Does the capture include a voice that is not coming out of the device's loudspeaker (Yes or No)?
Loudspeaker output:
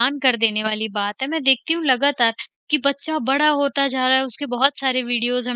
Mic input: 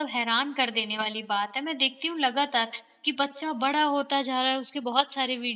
No